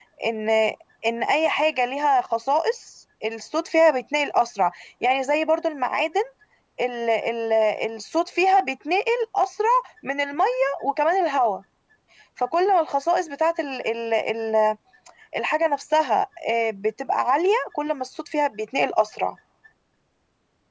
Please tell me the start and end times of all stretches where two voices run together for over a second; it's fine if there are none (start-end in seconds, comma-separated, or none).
none